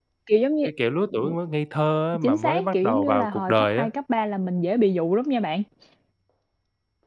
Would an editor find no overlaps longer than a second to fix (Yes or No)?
No